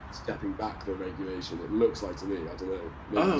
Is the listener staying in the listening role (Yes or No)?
No